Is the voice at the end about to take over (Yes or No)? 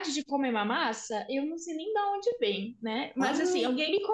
No